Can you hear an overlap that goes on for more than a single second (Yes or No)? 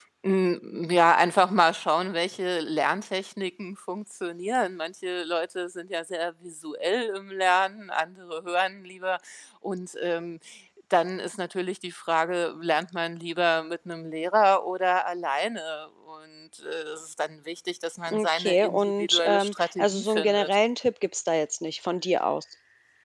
Yes